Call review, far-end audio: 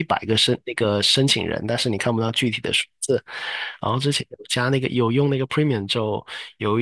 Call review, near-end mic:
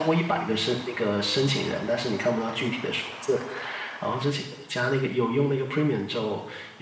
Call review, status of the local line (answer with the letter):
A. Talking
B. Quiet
B